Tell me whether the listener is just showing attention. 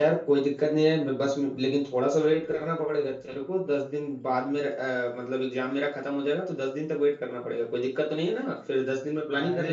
No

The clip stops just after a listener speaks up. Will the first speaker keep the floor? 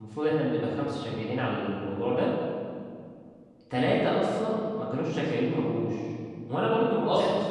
Yes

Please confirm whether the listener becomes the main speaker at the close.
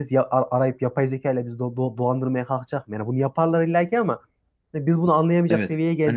Yes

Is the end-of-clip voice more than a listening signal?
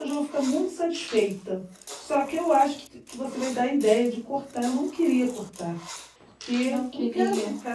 No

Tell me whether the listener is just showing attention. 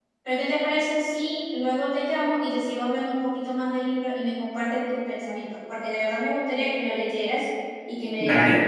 No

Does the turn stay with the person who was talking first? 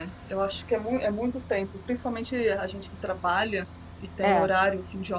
Yes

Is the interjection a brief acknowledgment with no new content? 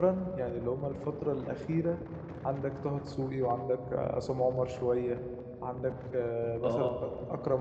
Yes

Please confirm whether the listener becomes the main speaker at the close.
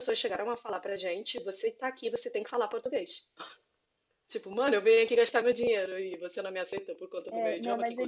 Yes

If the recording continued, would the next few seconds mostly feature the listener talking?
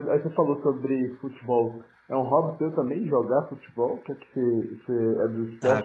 Yes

